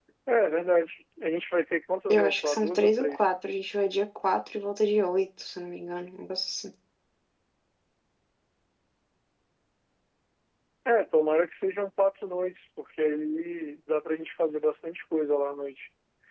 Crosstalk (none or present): present